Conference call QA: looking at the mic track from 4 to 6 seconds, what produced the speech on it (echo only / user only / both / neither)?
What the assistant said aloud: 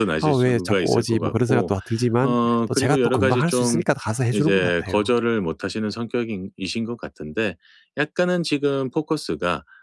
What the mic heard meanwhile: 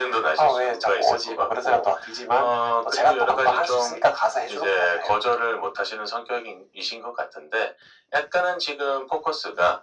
echo only